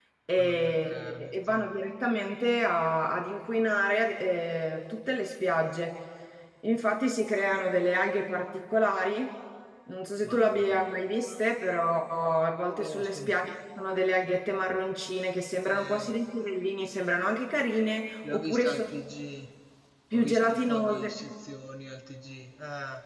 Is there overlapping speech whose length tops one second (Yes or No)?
Yes